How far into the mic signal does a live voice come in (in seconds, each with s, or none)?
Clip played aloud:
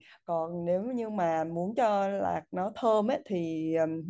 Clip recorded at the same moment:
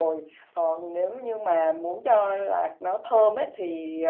none